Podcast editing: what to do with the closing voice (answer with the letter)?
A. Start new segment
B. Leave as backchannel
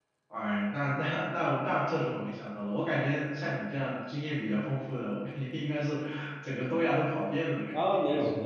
A